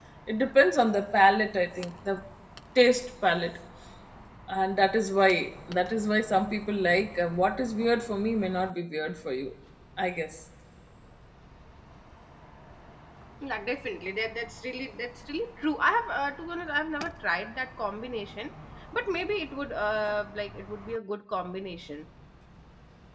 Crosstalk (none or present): none